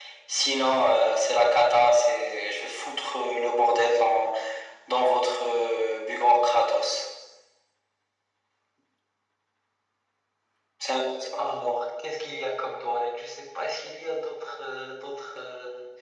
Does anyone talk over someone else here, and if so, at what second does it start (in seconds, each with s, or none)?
none